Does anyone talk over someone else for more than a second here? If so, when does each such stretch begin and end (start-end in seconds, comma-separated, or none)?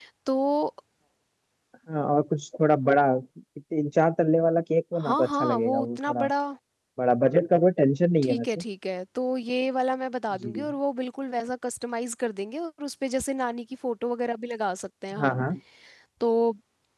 5.0-6.2